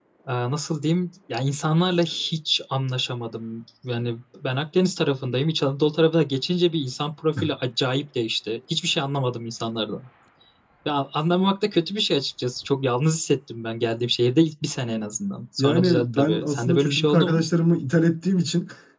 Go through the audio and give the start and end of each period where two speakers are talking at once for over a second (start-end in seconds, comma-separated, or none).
15.6-17.4